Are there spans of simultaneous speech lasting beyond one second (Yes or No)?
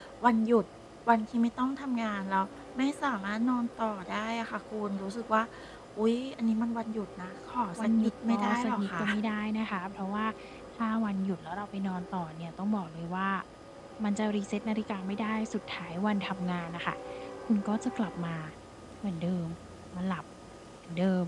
Yes